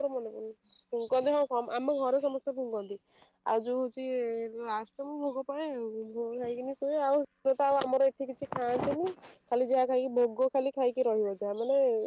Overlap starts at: none

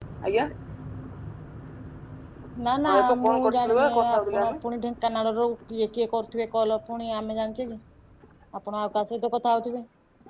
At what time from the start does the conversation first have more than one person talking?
2.8 s

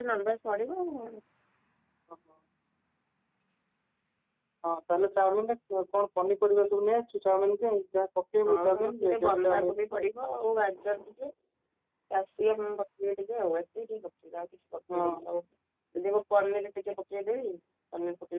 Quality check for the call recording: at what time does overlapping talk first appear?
8.5 s

